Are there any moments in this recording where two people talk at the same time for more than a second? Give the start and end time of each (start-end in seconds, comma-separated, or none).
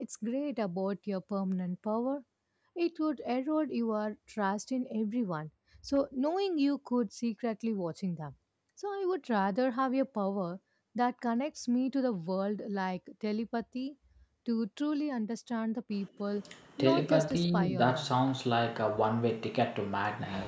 16.8-18.1